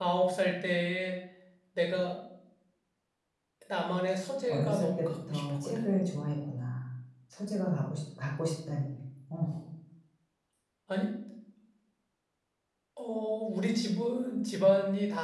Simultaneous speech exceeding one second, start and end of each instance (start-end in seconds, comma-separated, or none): 4.5-5.8